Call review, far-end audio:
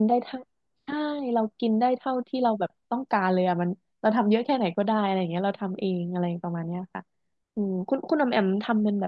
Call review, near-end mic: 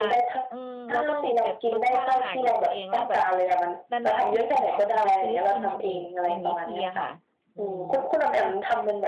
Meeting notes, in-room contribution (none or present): present